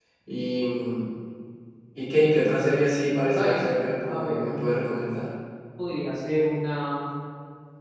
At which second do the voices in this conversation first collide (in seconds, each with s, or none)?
3.2 s